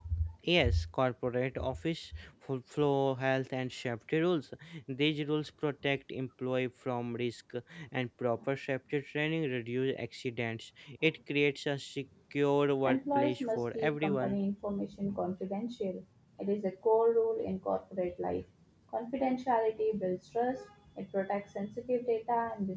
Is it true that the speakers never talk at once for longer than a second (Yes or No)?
No